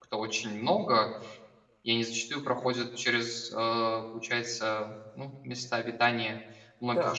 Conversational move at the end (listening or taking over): taking over